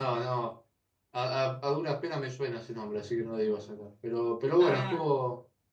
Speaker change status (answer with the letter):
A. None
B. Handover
A